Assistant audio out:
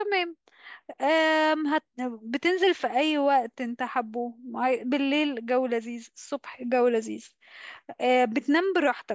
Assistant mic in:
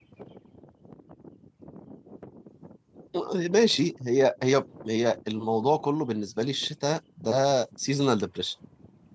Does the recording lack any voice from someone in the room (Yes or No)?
No